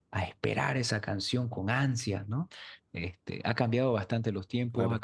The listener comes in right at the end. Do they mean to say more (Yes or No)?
Yes